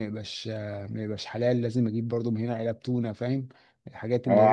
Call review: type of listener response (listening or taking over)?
taking over